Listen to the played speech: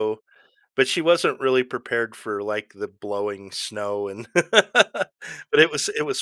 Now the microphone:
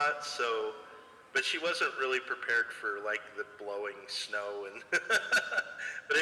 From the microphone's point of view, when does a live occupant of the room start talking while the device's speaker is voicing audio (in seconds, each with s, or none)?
none